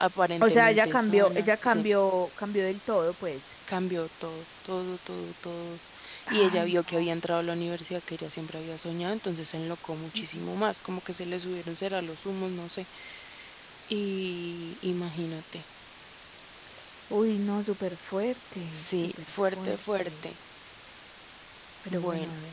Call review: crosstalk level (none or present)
present